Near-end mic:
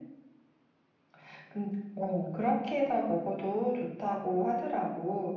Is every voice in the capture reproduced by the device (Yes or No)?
Yes